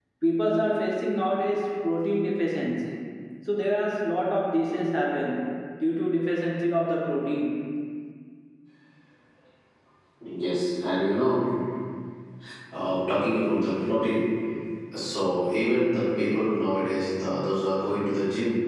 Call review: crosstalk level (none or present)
none